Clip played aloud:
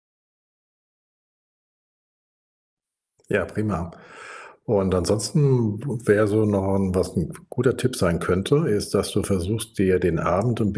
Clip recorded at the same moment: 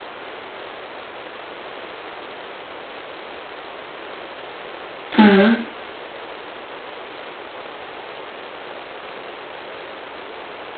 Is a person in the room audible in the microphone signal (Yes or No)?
Yes